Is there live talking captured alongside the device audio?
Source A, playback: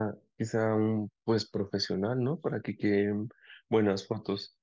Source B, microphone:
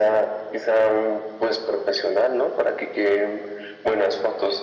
No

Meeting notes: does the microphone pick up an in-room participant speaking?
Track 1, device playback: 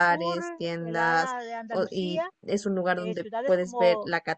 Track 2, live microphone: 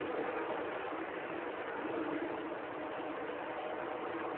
No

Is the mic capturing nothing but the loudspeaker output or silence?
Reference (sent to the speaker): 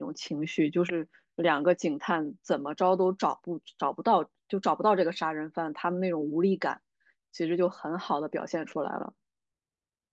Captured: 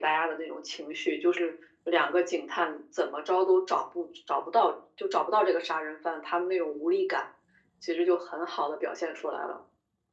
Yes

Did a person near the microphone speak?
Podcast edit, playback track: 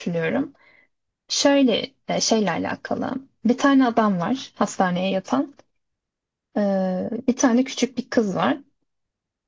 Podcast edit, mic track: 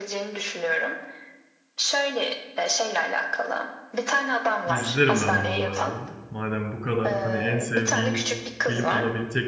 Yes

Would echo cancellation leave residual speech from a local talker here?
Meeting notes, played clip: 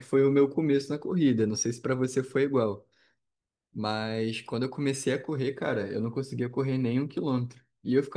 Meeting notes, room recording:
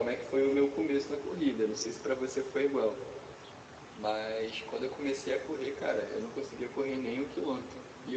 No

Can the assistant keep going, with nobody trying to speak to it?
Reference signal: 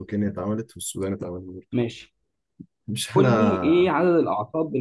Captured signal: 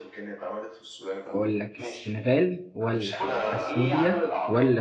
No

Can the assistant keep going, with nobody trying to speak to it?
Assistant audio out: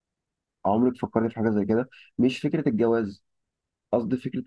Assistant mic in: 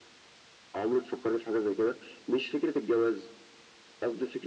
Yes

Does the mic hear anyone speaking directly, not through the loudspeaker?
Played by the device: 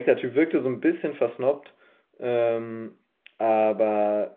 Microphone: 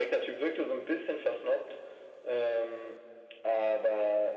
No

